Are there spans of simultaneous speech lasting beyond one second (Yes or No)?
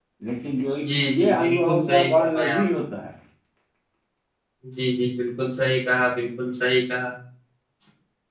Yes